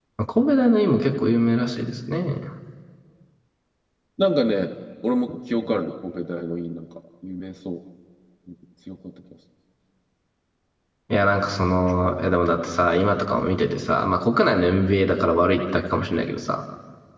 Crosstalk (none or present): none